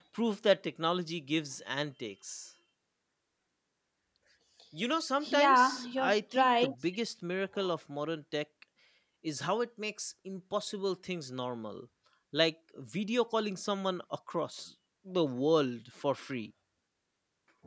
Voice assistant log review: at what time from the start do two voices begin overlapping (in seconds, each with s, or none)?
5.2 s